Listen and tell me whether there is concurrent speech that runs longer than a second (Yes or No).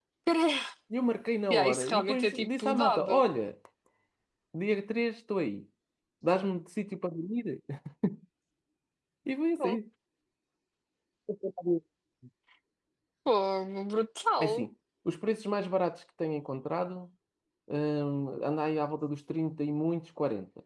Yes